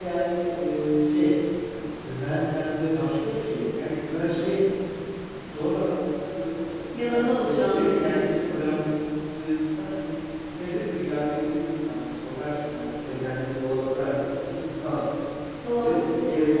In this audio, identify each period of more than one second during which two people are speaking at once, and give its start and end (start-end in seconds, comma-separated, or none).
6.9-8.2